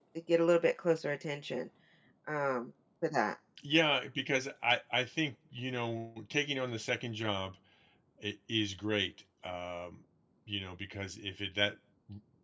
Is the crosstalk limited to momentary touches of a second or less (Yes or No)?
Yes